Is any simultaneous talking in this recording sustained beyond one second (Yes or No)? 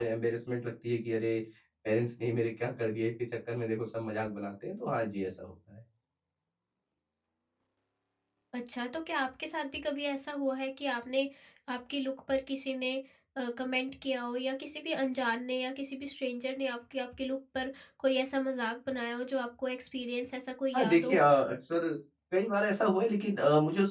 No